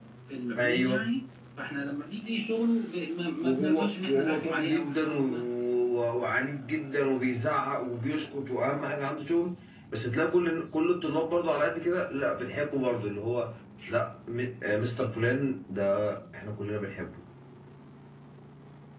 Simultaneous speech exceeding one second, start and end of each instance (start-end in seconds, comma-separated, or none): 3.4-5.2